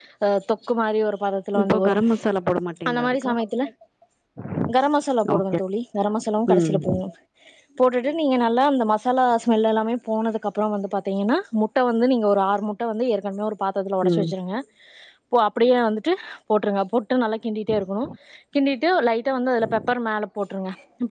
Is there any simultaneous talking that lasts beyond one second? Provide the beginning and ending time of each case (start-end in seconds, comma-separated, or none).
none